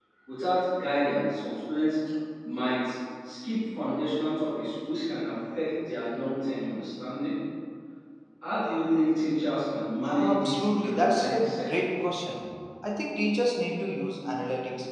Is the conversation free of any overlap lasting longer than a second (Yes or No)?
No